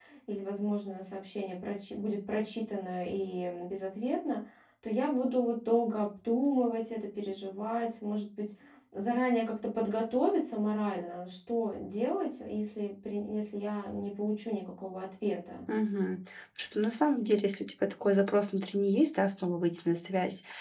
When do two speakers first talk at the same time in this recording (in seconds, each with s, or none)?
none